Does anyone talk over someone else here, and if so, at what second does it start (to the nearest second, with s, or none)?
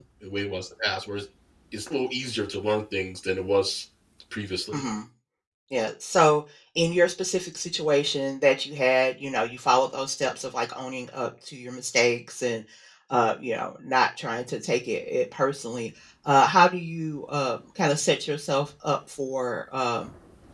none